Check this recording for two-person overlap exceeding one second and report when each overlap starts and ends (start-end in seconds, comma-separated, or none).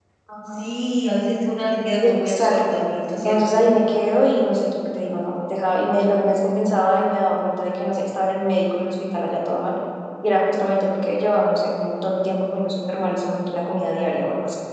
2.0-3.5